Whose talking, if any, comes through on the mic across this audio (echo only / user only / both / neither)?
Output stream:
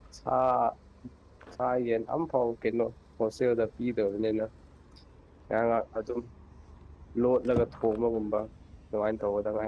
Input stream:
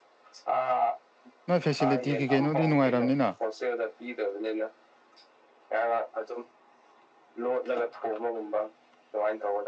both